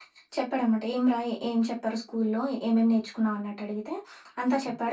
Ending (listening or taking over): listening